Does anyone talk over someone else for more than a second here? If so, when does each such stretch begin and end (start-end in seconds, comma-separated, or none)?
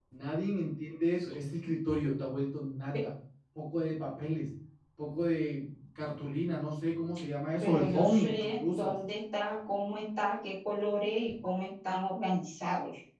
7.6-8.9